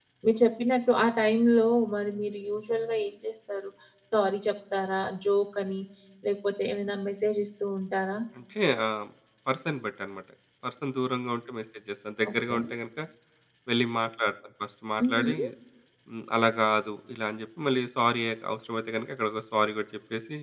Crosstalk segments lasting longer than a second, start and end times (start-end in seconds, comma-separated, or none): none